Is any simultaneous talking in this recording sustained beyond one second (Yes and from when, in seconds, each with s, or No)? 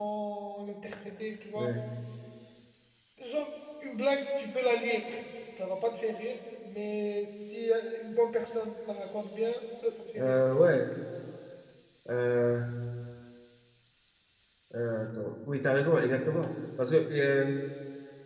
No